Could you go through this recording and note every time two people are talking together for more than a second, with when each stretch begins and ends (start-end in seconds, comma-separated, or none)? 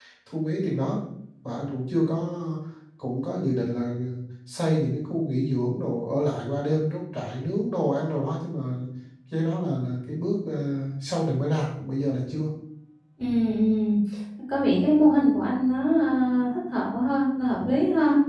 none